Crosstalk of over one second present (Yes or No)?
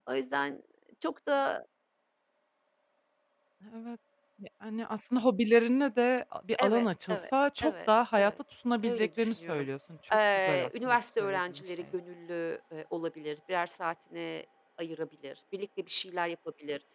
Yes